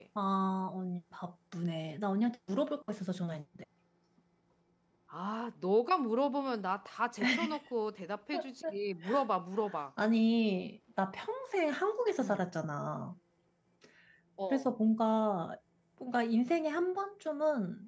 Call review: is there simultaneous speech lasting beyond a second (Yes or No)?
No